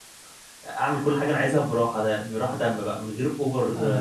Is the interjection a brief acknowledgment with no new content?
No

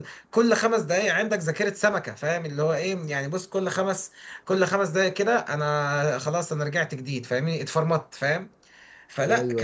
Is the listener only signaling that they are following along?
Yes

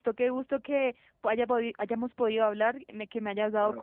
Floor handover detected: Yes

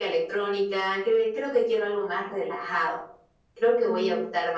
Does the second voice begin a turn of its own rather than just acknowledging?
No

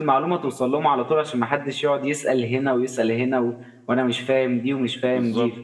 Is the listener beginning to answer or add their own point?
No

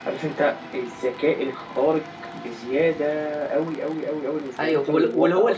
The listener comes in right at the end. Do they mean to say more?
Yes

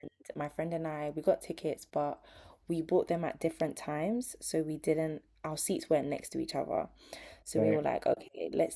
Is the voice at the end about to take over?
No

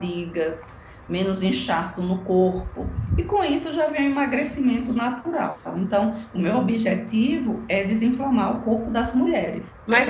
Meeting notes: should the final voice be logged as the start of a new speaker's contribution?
Yes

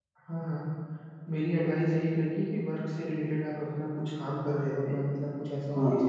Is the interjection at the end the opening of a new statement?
No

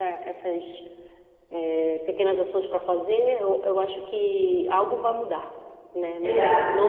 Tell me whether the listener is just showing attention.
Yes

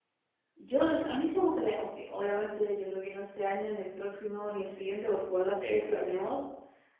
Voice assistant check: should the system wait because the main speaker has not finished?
Yes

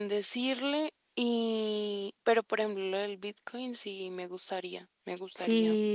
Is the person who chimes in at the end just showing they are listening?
No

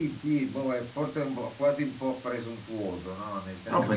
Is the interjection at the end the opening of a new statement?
No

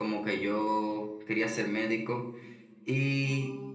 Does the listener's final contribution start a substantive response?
No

